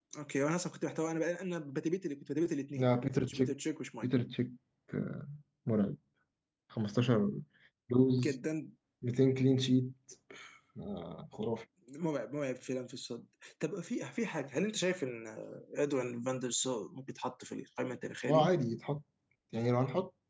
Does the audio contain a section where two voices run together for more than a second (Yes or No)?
No